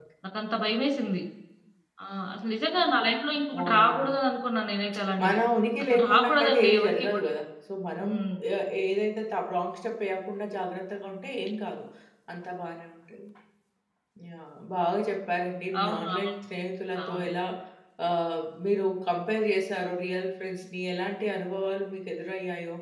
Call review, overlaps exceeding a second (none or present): present